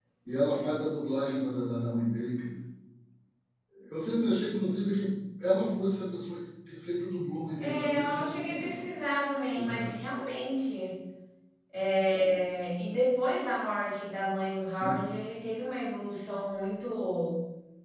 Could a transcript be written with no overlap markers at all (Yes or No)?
No